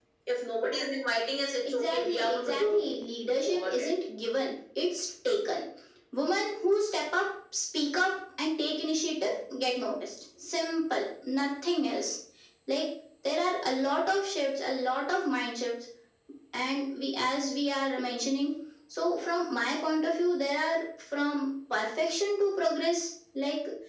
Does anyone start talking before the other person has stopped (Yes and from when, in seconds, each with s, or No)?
Yes, from 1.6 s